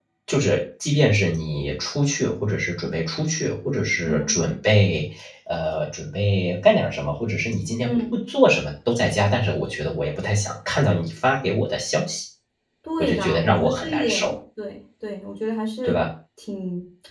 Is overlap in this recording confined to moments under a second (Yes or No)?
No